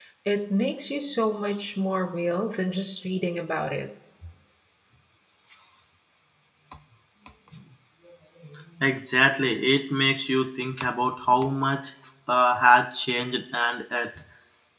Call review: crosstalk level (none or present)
none